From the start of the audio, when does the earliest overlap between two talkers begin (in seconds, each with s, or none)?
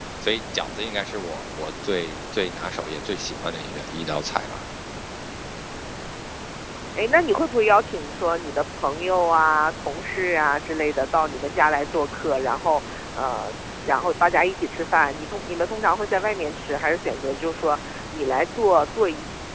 none